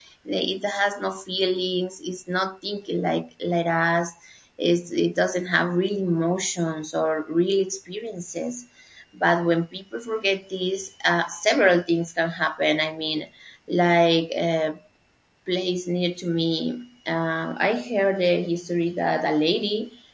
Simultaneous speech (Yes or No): No